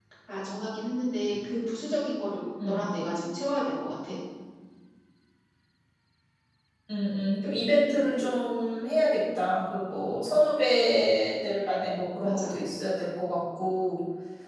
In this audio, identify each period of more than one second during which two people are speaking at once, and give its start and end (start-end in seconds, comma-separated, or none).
none